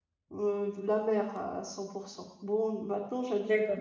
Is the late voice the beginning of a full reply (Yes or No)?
No